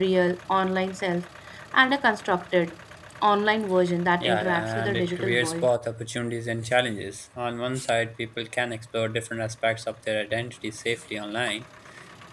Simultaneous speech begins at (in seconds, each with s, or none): 4.2 s